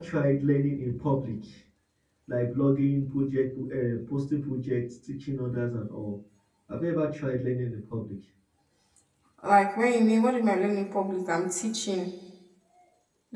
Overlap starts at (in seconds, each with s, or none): none